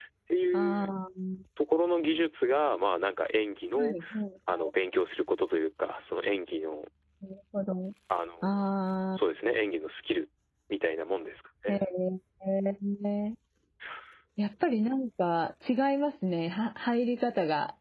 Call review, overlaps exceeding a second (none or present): none